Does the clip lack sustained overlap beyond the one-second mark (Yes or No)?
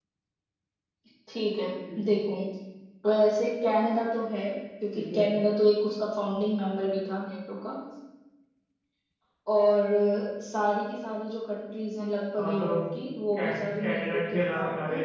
No